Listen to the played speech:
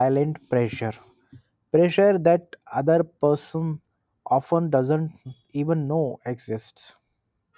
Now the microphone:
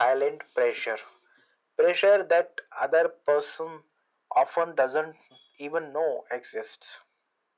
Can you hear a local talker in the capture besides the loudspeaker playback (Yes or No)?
No